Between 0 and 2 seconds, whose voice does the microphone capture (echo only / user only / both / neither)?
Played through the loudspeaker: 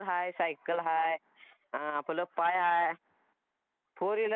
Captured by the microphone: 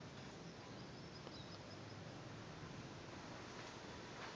neither